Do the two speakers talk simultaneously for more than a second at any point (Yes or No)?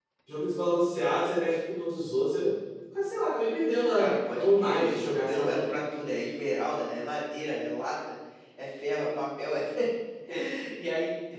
Yes